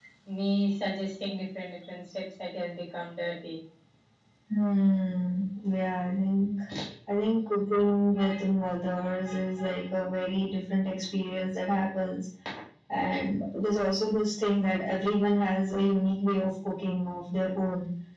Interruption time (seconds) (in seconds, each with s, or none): none